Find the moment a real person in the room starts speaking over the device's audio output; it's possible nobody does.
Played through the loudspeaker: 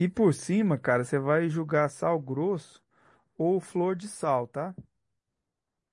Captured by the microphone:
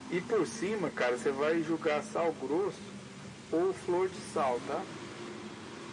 none

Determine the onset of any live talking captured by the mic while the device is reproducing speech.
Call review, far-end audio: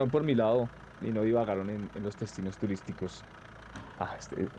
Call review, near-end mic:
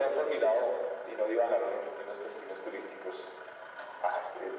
none

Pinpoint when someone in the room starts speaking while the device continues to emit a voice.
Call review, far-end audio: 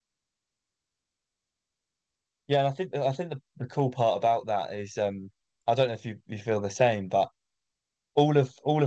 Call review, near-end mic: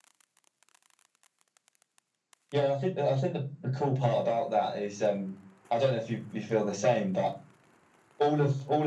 none

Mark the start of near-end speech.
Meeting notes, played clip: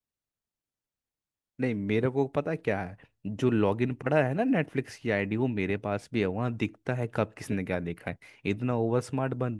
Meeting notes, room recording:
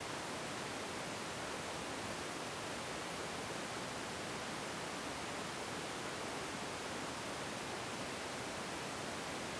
none

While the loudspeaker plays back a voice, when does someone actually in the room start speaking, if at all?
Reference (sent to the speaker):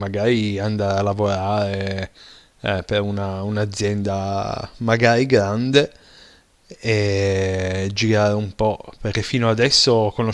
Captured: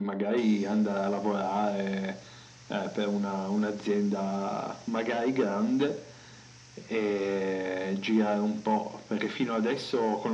none

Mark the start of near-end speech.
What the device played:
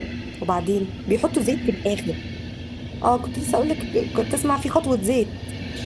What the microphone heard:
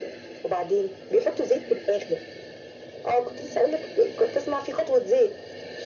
none

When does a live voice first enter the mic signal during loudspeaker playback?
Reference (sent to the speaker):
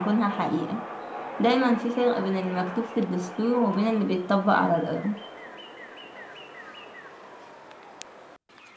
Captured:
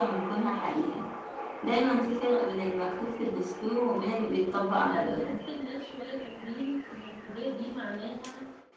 4.8 s

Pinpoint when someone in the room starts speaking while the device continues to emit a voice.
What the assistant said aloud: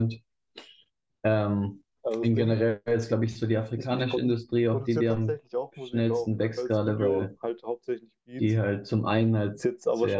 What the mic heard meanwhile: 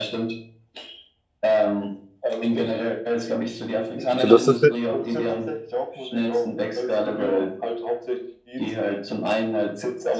4.2 s

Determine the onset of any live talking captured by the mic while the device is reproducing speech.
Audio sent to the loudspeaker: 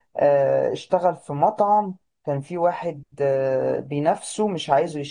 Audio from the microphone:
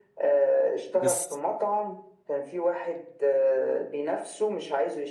0.9 s

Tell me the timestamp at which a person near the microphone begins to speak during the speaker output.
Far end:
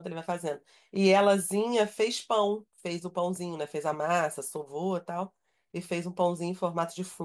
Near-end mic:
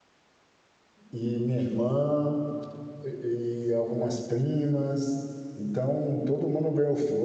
1.1 s

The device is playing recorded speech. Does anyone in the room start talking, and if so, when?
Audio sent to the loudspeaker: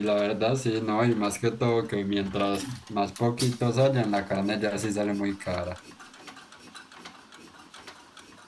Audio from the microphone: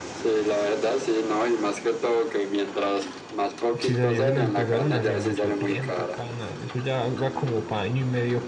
3.8 s

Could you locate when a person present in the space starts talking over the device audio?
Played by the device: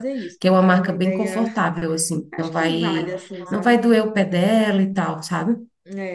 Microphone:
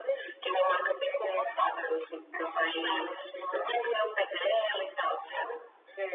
none

